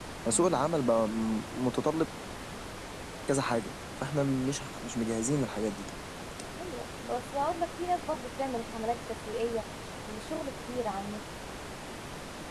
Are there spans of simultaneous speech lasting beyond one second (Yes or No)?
No